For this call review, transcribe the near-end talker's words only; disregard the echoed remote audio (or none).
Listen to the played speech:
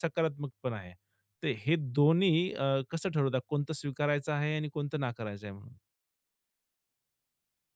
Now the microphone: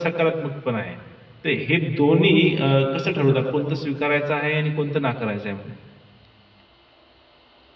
none